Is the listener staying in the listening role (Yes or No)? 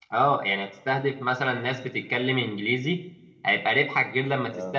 Yes